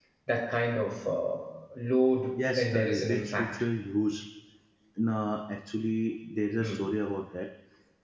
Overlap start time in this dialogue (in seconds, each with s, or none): 2.4 s